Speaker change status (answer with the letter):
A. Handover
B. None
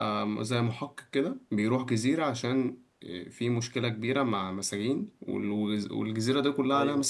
B